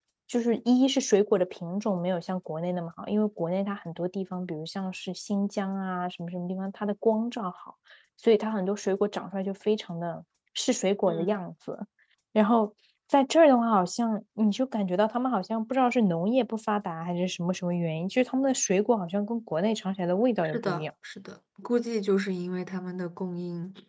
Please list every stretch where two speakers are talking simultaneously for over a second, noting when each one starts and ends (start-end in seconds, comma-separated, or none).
none